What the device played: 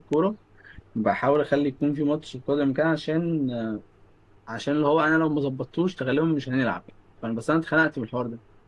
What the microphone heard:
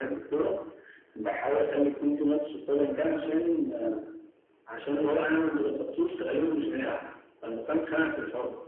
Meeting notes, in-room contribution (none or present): none